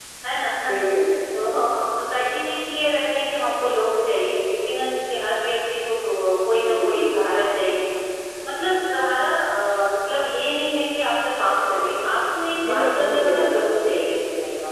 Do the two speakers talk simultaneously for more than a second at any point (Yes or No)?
Yes